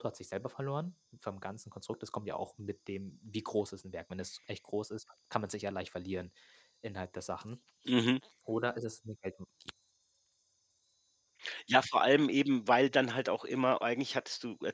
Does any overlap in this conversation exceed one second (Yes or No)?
No